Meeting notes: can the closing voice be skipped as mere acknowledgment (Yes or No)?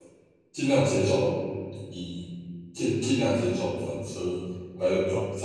No